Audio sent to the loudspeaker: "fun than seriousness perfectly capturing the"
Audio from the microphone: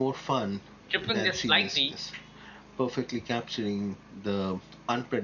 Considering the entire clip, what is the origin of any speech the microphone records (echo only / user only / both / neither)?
both